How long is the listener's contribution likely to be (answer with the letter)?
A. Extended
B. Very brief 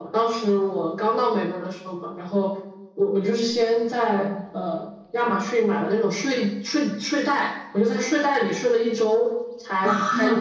B